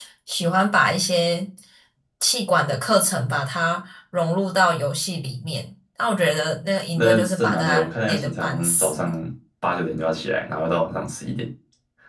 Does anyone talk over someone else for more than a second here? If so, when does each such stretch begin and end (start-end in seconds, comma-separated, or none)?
7.0-8.9